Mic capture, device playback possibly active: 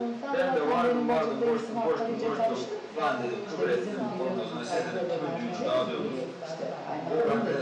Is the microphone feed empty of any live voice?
No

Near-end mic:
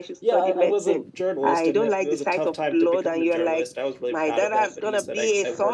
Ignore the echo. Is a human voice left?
Yes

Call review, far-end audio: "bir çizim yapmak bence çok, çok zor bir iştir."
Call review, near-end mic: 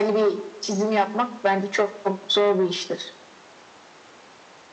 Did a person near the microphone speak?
No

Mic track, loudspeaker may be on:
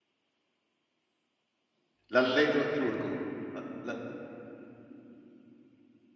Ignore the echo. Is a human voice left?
Yes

